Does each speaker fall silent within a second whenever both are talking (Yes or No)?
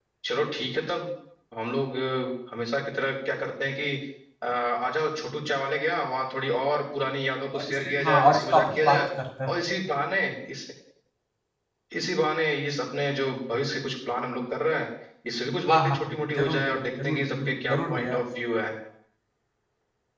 No